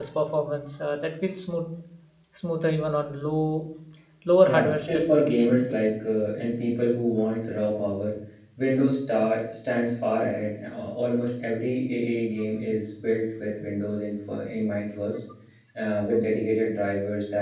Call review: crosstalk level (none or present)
present